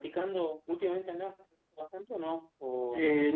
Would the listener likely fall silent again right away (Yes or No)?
No